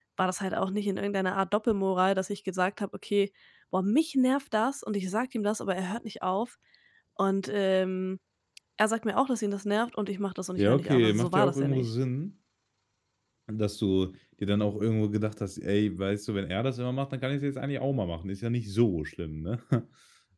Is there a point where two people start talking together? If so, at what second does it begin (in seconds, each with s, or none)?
10.6 s